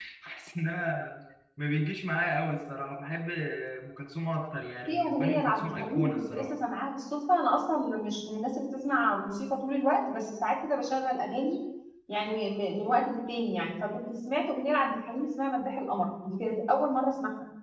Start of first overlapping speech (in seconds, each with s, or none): 4.9 s